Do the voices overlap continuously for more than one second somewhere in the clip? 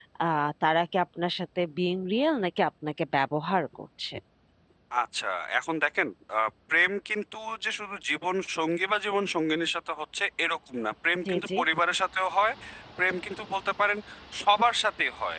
No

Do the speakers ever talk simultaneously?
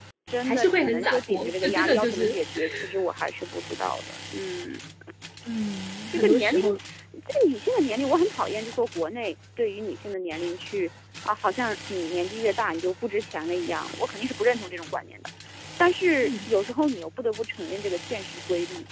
Yes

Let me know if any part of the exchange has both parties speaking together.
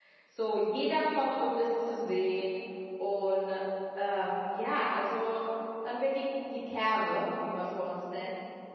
No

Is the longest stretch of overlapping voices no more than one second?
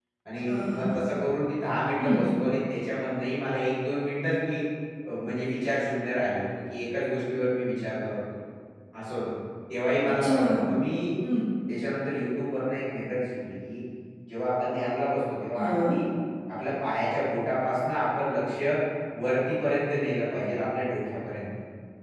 Yes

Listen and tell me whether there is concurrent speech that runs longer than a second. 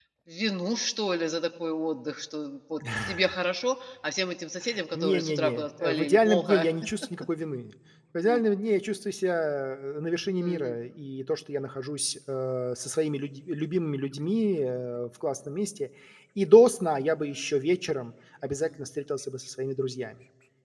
Yes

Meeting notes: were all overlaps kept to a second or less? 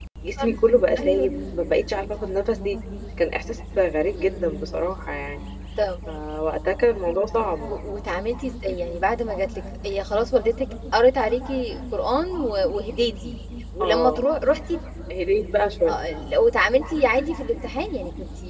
Yes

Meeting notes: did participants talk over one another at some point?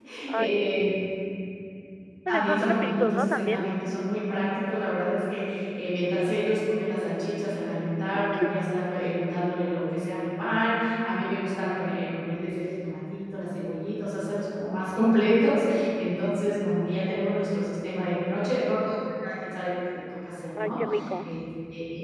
Yes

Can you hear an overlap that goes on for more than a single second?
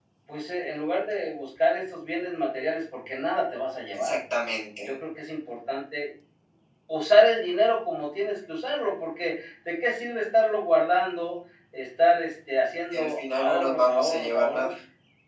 Yes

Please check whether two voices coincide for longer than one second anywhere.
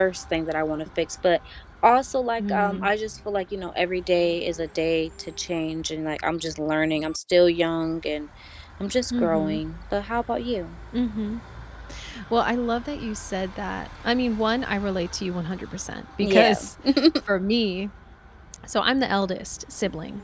No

